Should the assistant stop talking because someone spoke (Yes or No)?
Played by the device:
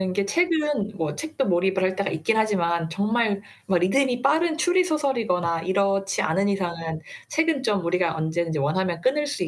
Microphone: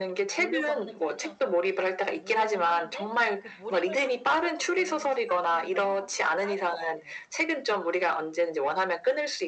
Yes